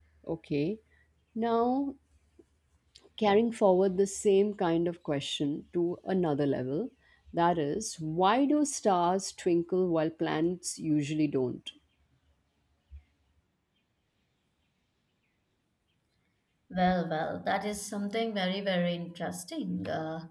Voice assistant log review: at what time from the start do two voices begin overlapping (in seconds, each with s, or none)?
none